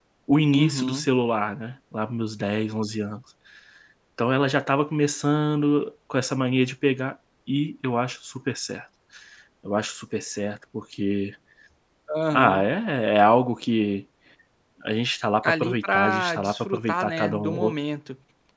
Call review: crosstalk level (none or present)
present